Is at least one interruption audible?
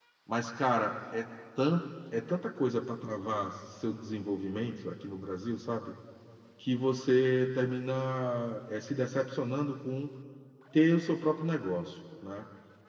No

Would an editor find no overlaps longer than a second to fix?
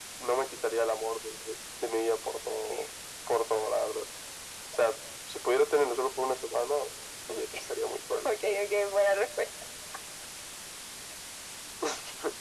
Yes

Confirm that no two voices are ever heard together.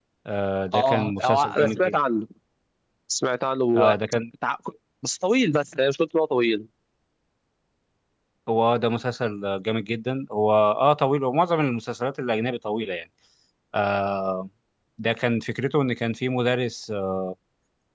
No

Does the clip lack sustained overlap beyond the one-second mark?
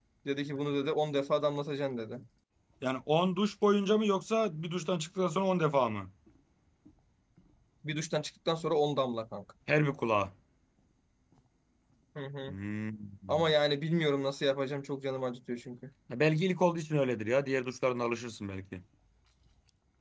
Yes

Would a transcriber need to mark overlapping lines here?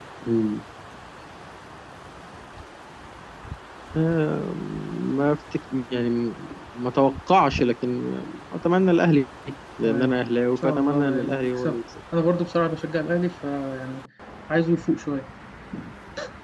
Yes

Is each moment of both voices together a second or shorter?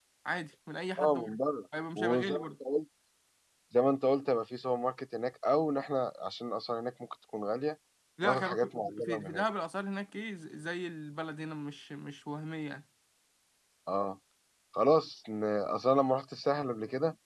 No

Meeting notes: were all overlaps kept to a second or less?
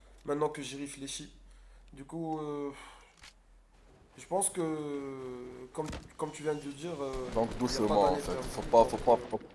No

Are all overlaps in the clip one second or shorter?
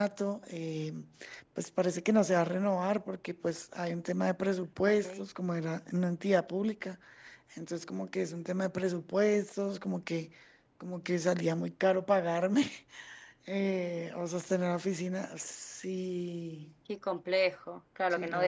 Yes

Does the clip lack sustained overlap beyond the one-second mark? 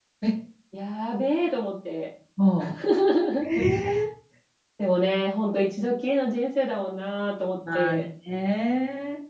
Yes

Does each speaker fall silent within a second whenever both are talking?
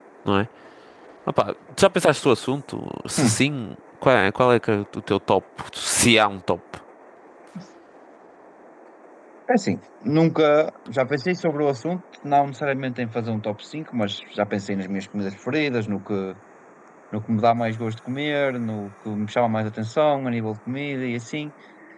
Yes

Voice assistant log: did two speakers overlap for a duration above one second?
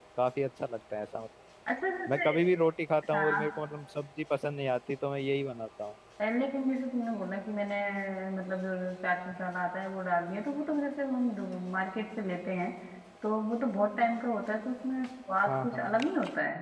No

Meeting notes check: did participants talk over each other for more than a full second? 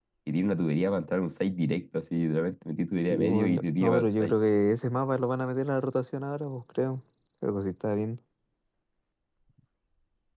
Yes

